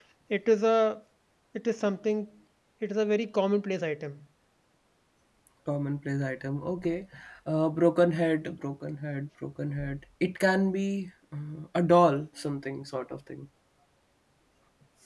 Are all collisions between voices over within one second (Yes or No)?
Yes